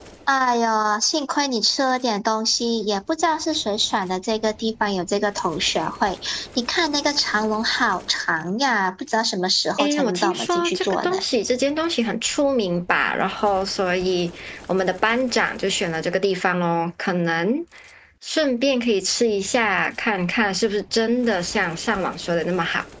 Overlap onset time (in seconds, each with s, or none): 9.8 s